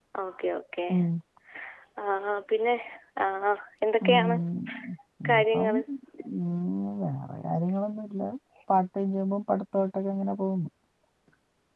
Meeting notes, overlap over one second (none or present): none